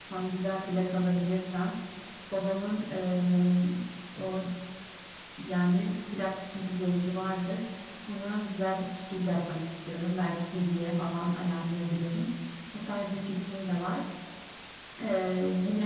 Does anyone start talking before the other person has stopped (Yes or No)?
No